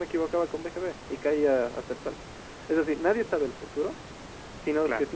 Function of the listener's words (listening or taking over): listening